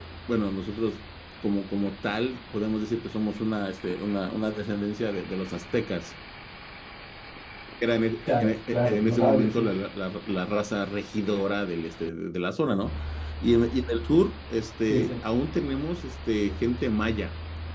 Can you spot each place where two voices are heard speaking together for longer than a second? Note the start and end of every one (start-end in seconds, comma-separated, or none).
8.3-9.7